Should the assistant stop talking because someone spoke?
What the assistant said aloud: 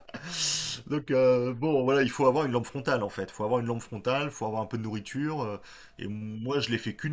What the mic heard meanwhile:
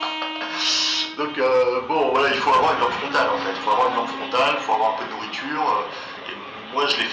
No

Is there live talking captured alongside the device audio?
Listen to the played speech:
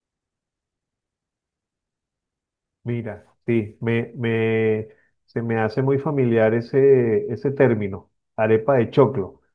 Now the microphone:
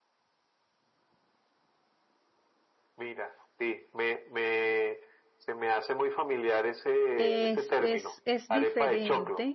Yes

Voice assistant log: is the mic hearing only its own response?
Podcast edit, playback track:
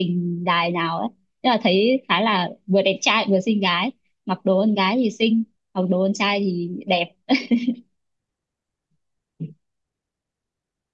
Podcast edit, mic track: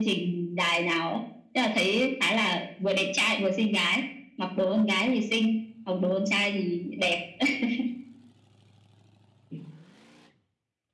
Yes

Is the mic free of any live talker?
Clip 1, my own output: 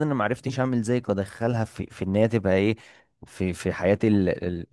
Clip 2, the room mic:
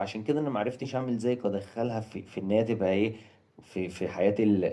Yes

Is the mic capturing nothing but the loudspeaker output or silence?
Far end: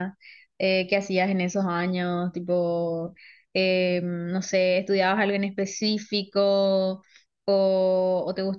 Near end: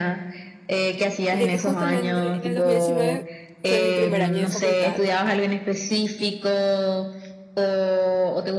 No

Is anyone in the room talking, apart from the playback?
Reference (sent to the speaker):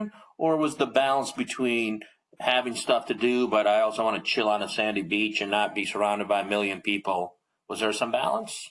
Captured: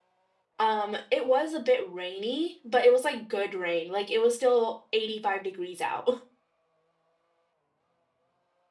Yes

